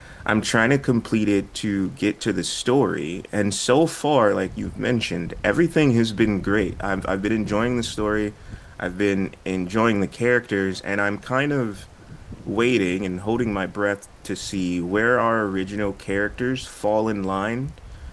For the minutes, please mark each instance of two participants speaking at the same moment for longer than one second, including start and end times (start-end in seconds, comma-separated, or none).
none